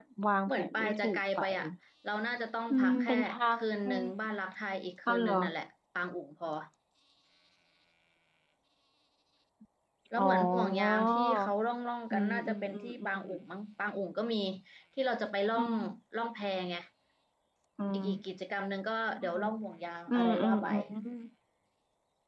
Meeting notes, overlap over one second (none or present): present